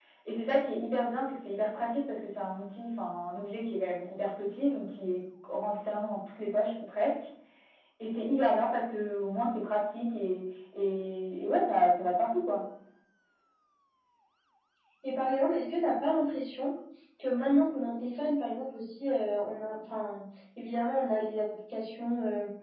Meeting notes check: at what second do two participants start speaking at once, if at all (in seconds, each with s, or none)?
none